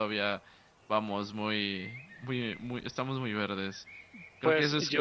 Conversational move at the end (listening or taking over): taking over